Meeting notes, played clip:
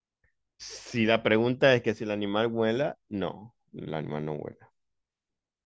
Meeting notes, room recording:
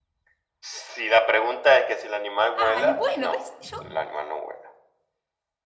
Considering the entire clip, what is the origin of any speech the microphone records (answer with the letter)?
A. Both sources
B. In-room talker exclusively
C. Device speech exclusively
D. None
A